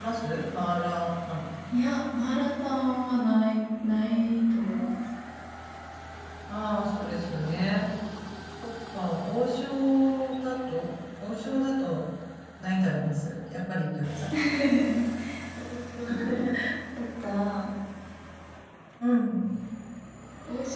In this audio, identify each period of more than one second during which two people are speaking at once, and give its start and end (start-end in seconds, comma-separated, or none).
none